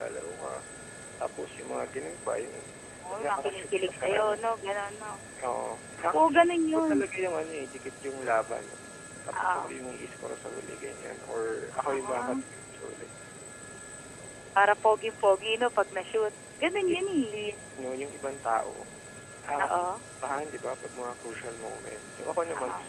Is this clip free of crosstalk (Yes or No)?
No